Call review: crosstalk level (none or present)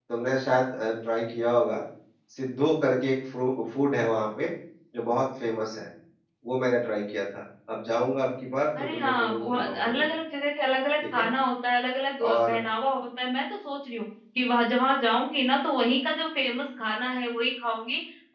present